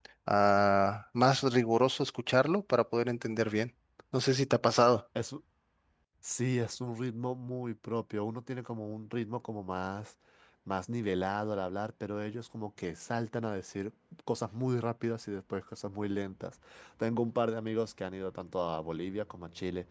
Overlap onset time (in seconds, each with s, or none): none